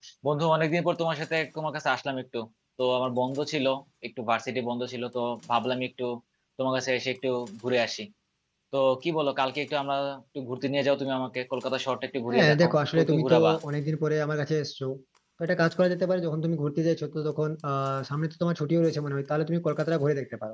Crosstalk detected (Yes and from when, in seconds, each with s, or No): Yes, from 12.3 s